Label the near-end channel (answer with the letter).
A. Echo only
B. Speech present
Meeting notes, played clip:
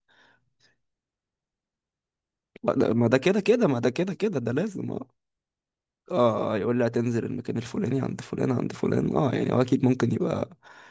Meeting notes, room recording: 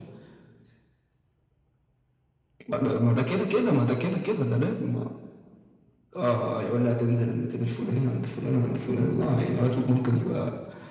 A